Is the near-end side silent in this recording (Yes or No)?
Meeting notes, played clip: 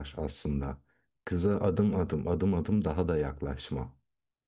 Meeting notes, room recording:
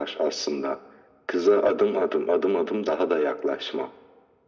Yes